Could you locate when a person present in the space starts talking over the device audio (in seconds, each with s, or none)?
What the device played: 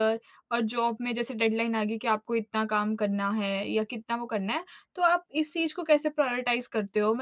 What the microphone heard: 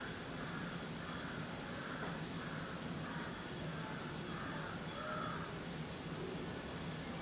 none